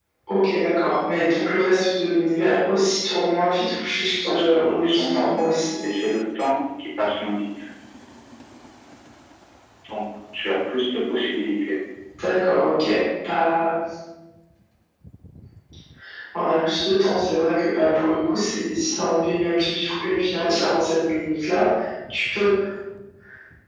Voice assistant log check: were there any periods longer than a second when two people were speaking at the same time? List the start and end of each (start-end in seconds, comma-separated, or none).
4.0-5.5